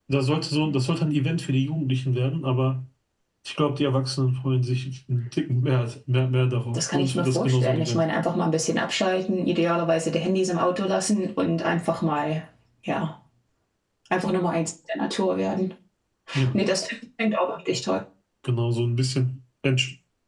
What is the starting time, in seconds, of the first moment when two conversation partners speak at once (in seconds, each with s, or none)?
6.7 s